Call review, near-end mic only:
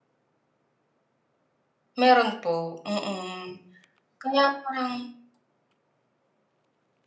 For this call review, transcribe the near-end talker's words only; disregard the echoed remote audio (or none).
Meron po mhm, kaya parang